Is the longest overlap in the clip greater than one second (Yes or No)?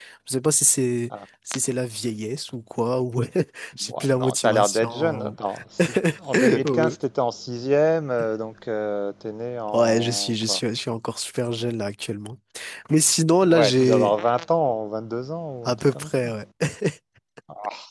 Yes